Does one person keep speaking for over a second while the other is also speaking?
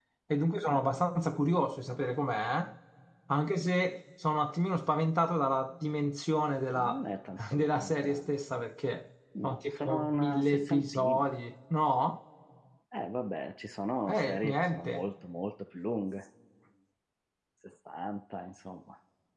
Yes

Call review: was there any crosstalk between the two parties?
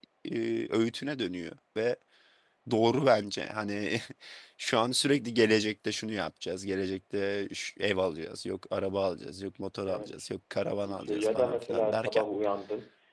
Yes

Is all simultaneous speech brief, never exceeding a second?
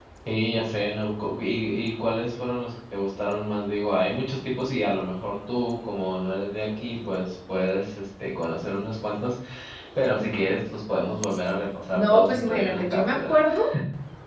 No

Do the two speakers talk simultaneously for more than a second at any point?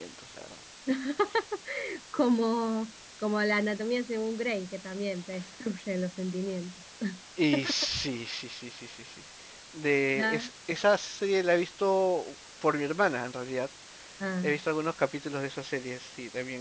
No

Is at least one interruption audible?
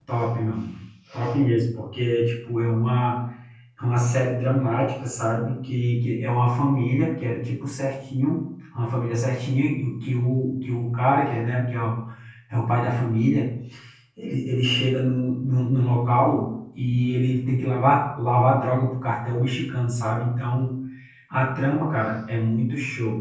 No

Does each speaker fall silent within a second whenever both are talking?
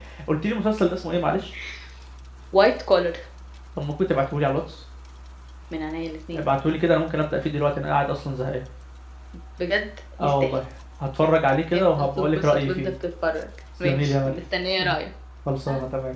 No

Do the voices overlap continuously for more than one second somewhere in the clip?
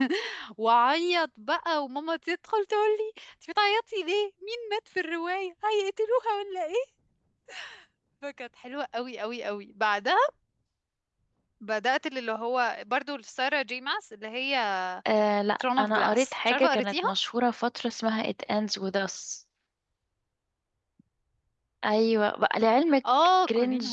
Yes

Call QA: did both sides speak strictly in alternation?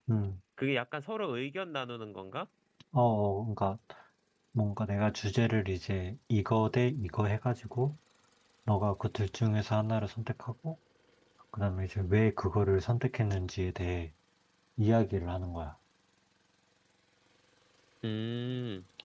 Yes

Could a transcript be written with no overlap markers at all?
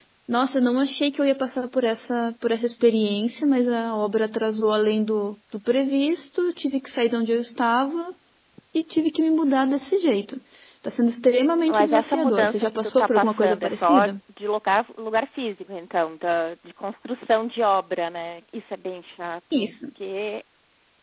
No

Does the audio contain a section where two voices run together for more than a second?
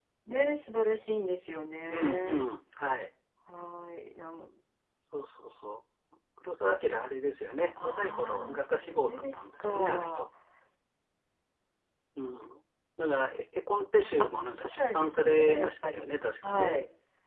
Yes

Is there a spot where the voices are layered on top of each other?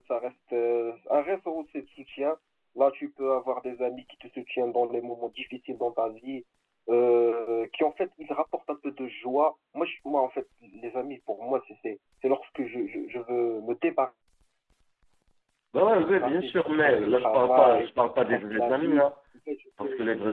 Yes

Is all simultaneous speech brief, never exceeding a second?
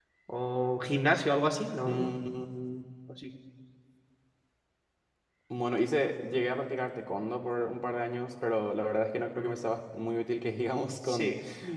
Yes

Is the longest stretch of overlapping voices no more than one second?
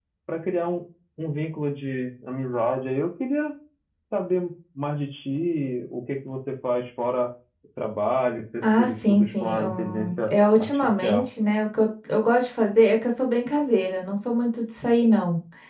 No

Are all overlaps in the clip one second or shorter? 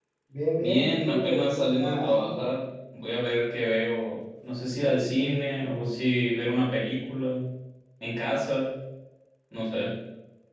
No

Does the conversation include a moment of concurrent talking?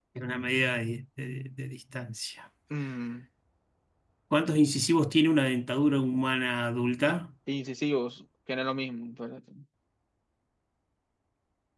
No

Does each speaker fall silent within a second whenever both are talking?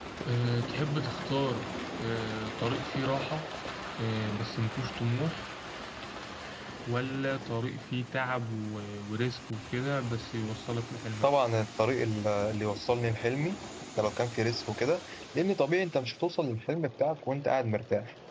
Yes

